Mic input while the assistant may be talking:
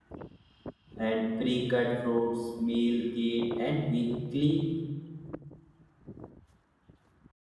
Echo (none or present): none